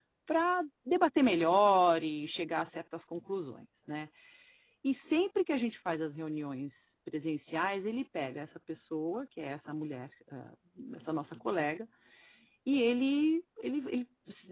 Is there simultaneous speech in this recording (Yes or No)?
No